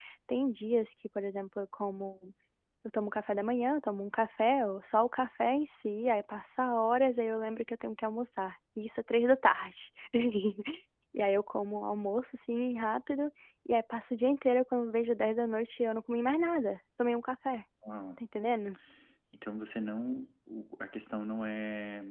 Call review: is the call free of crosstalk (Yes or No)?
Yes